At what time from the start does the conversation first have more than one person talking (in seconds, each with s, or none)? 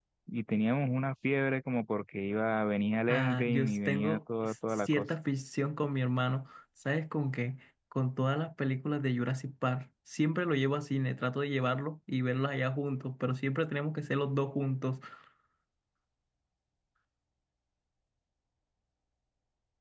3.1 s